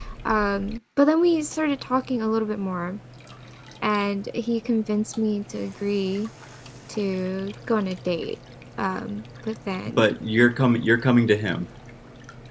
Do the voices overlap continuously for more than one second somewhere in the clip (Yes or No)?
No